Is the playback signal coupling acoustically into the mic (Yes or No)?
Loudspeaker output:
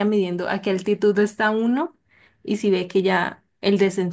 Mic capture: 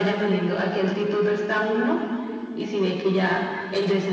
Yes